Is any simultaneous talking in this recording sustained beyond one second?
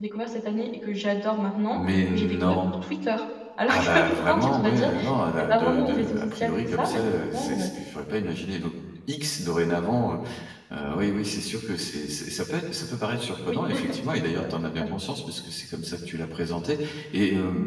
Yes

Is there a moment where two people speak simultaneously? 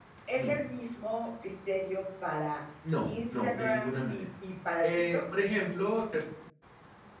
Yes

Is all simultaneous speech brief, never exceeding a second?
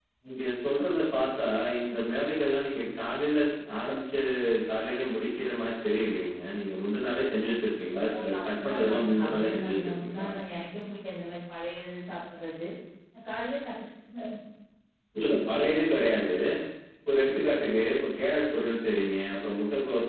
No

